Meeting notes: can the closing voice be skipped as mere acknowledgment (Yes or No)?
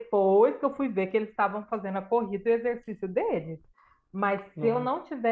Yes